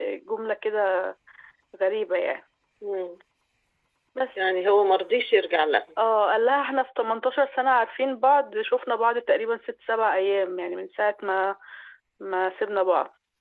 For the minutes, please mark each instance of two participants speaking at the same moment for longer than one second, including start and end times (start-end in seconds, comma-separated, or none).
none